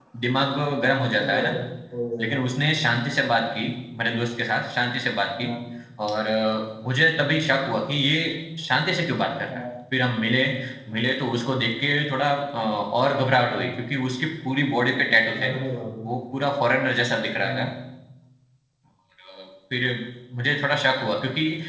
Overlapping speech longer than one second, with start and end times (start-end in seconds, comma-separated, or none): none